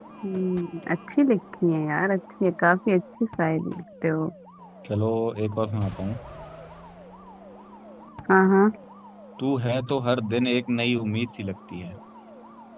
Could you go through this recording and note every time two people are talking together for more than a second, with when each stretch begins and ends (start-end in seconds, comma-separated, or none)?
none